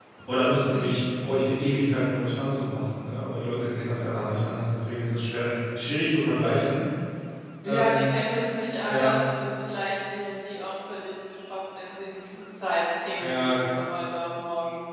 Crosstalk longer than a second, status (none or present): none